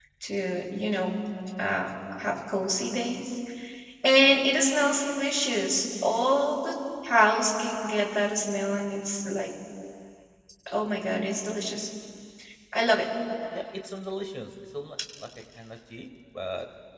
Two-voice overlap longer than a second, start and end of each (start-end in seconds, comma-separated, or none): none